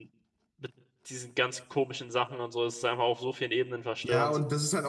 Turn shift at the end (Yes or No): Yes